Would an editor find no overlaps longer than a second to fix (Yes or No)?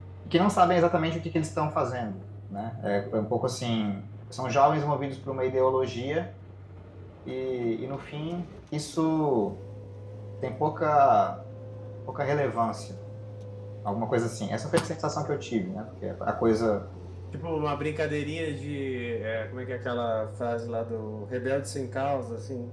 Yes